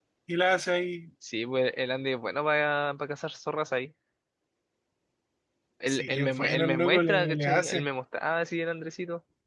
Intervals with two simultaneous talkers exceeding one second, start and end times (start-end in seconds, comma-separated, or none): 5.9-7.9